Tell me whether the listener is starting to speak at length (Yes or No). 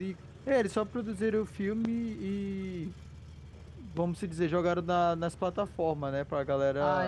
Yes